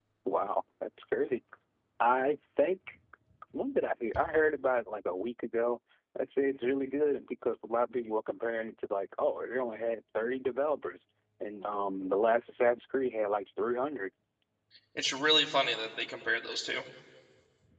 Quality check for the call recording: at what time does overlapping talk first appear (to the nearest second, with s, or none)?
none